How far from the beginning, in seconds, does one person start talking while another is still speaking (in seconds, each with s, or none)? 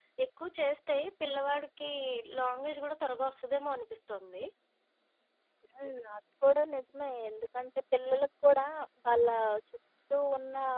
none